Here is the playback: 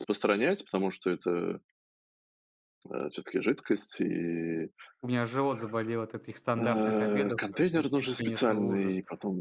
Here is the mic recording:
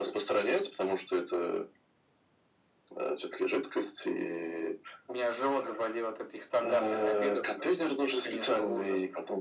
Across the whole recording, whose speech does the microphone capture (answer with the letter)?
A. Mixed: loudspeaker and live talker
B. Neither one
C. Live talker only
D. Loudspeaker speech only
D